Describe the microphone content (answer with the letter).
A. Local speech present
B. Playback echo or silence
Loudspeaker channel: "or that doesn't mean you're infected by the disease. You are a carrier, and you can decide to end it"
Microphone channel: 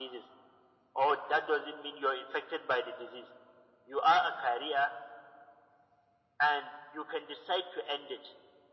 B